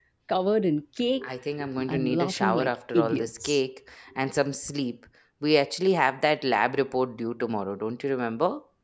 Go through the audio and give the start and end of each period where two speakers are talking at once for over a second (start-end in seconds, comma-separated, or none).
1.9-3.6